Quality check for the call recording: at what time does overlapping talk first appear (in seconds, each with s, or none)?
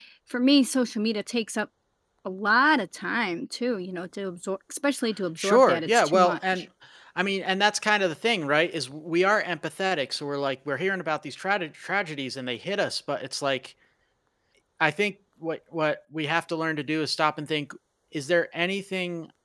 5.4 s